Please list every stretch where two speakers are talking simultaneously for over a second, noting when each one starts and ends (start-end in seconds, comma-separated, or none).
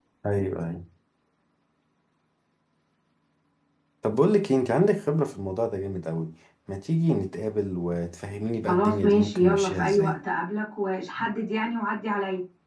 8.7-10.2